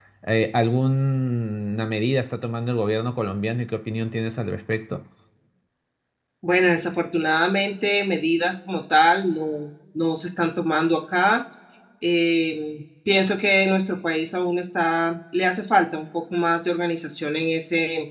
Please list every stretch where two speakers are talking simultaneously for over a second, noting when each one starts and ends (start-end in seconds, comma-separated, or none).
none